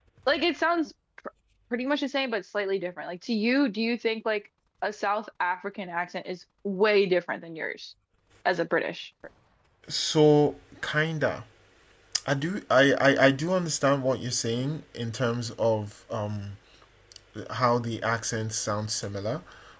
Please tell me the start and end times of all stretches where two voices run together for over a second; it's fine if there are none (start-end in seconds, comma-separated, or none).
none